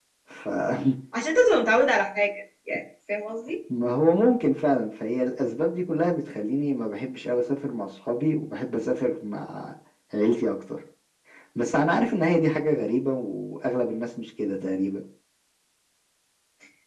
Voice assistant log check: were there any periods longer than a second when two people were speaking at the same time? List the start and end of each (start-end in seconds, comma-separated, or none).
none